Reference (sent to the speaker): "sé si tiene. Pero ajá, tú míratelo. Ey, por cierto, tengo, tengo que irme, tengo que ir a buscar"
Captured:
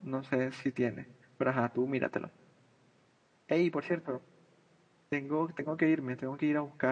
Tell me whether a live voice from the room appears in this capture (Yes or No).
No